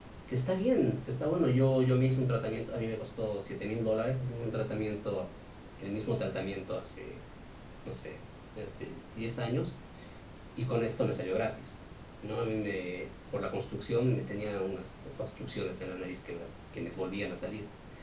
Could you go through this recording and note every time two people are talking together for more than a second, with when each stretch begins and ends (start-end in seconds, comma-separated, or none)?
none